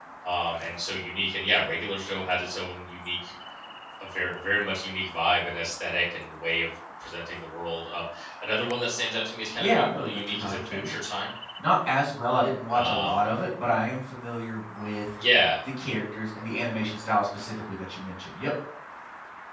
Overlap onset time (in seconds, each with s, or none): 9.6 s